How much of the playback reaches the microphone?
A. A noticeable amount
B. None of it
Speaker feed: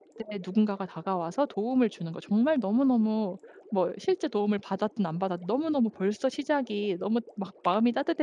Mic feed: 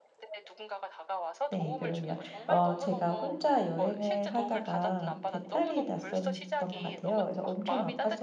A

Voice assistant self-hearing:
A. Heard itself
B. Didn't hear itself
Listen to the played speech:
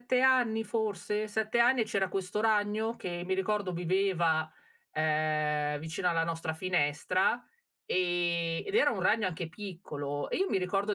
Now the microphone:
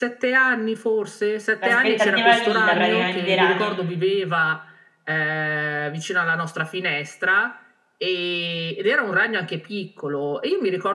A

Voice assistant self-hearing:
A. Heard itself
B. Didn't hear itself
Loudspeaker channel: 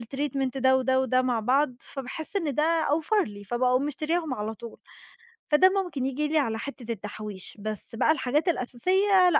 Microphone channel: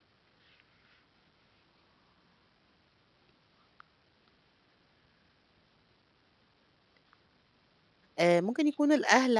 B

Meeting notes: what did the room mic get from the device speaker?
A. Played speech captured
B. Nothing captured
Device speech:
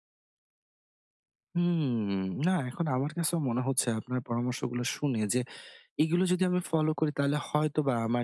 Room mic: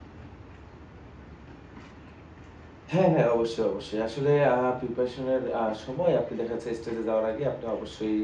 B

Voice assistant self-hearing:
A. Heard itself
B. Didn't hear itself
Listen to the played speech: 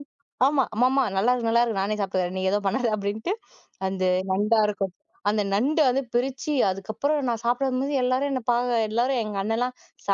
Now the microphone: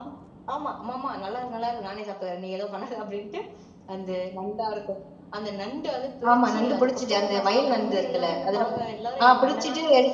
A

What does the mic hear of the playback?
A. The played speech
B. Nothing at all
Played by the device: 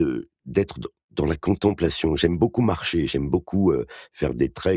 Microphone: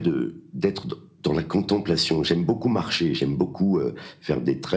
A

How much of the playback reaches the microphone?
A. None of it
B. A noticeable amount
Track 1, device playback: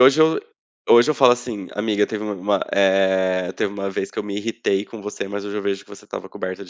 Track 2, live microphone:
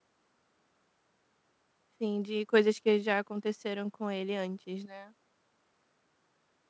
A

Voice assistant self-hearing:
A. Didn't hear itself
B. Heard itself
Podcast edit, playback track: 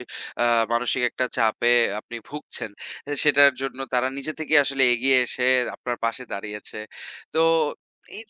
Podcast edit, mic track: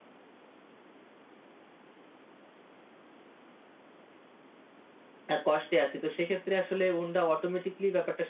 A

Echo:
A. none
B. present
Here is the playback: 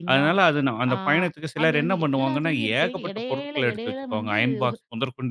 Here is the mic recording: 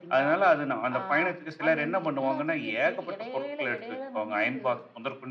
B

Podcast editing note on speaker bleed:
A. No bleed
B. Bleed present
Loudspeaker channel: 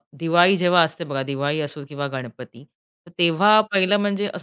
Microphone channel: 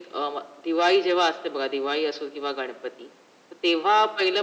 B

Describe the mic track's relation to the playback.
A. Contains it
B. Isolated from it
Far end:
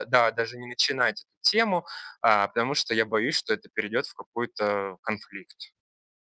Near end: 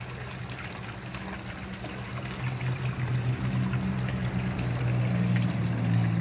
B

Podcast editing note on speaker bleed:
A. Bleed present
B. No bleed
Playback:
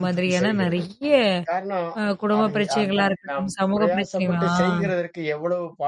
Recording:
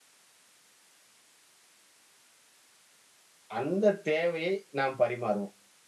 B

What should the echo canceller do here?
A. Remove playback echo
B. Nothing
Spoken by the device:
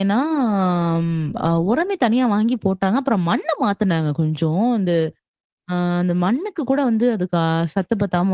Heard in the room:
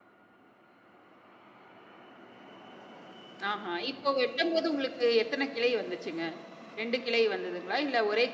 B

